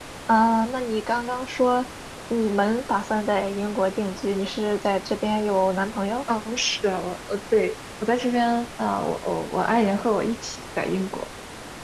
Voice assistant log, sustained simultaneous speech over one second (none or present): none